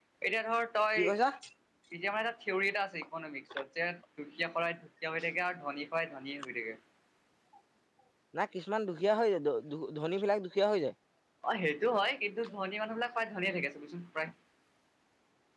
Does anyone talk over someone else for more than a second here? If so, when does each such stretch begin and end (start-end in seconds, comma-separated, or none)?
none